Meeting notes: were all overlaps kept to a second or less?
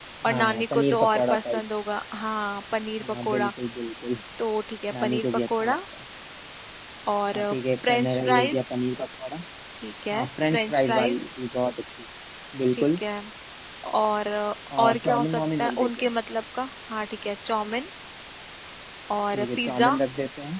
No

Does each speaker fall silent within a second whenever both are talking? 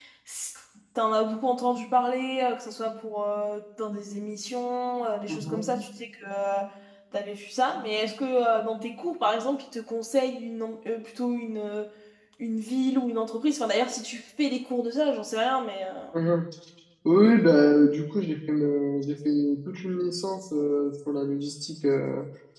Yes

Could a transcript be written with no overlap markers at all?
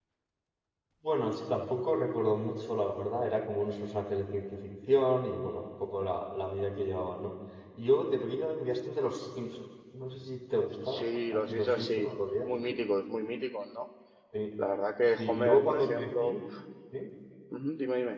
No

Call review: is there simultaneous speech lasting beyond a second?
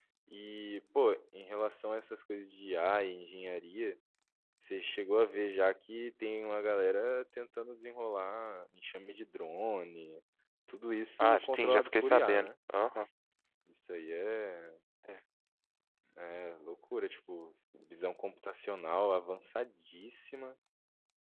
Yes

